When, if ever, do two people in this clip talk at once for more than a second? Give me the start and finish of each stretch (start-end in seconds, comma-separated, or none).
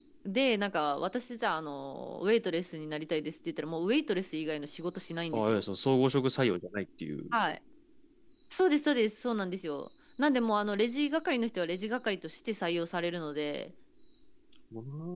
none